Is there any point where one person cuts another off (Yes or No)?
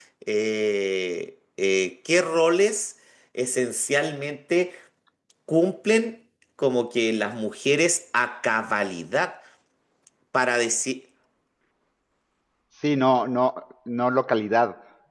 No